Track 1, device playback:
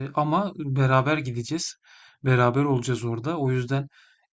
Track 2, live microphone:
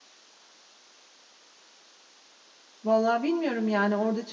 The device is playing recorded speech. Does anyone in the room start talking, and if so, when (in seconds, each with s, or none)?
2.8 s